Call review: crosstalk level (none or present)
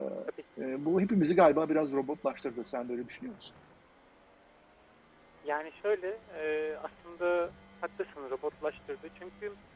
none